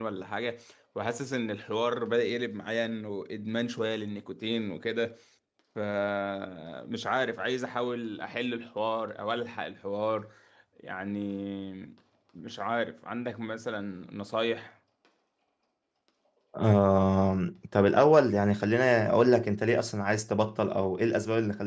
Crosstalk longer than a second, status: none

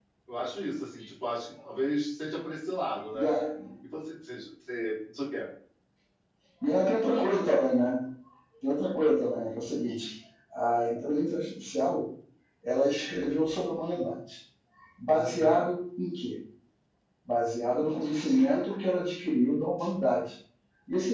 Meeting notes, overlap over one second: none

